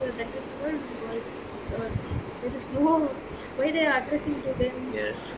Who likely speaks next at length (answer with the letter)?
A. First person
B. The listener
A